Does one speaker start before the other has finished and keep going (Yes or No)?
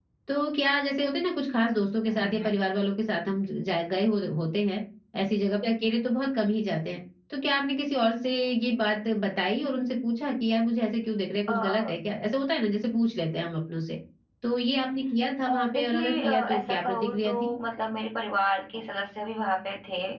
Yes